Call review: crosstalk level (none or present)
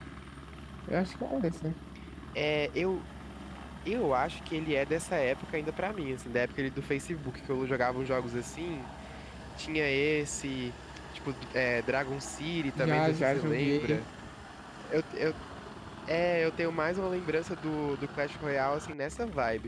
present